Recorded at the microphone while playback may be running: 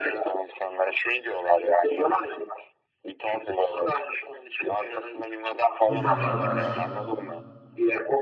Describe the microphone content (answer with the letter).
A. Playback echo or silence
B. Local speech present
B